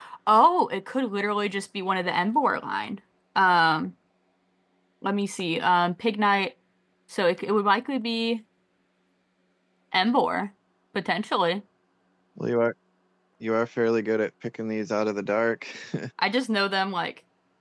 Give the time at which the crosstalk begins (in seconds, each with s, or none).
none